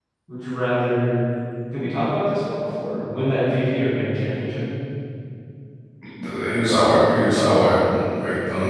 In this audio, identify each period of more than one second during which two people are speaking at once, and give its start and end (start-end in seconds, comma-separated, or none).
none